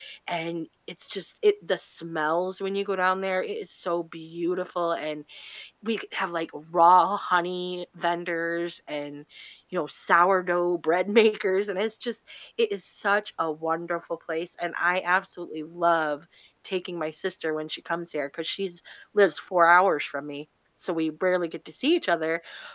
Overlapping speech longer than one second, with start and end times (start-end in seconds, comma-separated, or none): none